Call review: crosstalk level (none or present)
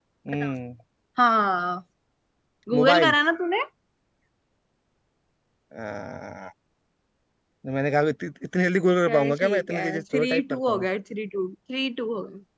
present